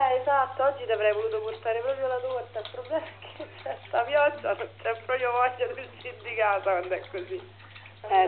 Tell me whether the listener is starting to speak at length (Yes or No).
Yes